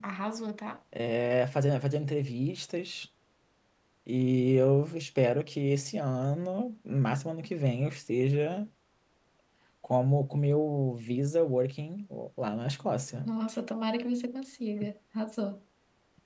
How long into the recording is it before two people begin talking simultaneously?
none

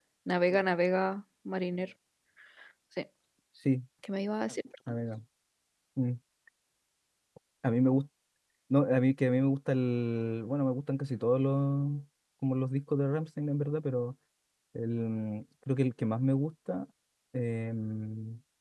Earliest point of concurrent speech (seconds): none

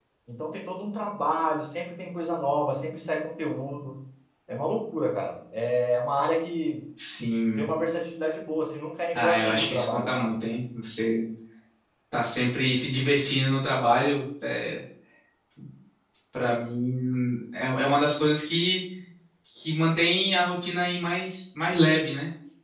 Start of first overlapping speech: 9.2 s

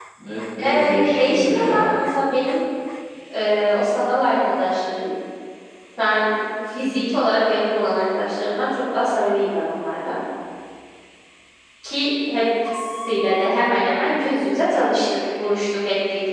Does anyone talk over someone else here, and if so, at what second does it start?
0.6 s

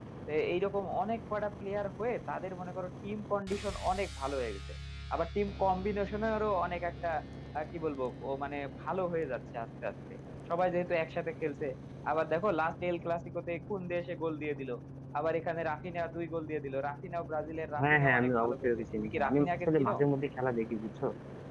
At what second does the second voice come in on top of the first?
17.8 s

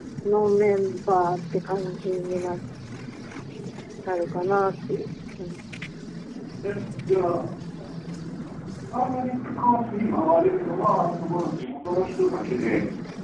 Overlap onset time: none

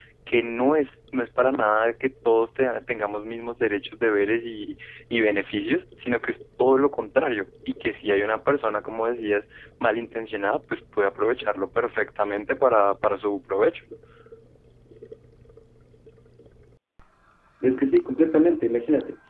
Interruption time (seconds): none

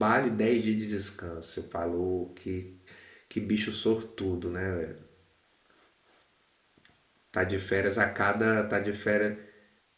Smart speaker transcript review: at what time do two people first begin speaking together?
none

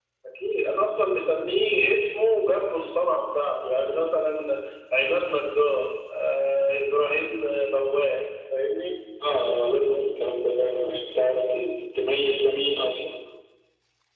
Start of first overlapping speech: none

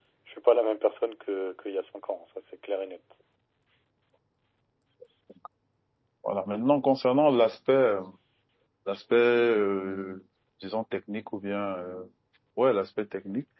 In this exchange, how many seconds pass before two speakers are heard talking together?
none

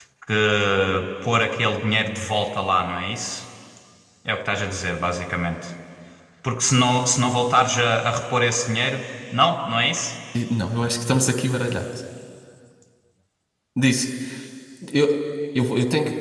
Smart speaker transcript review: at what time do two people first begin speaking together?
none

